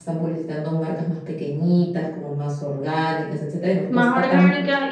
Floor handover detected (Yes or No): Yes